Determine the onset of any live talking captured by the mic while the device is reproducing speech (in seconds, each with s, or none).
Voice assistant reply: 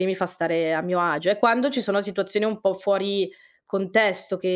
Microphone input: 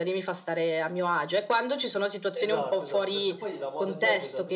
2.3 s